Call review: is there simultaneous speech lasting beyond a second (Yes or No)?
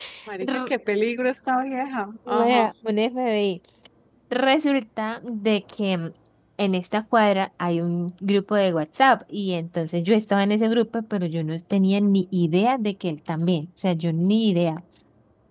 No